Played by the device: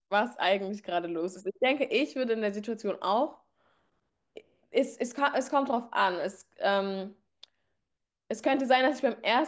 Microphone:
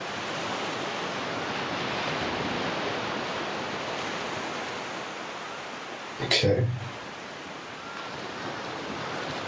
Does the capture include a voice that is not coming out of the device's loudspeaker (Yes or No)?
Yes